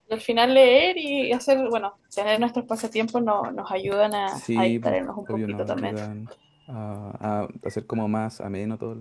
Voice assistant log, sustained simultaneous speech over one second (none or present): present